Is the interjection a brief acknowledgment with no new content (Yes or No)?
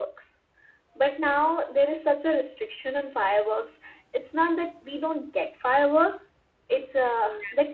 Yes